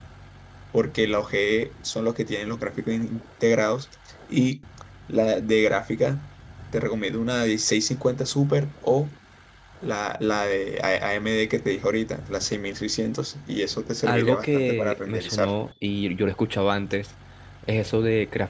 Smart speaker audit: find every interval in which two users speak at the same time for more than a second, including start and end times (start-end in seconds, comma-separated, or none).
14.0-15.5